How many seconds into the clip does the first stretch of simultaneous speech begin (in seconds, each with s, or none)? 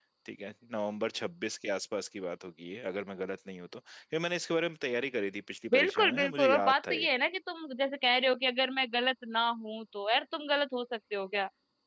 5.7 s